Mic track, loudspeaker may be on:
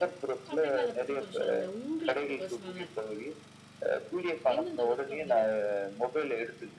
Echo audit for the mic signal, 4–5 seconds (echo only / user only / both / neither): both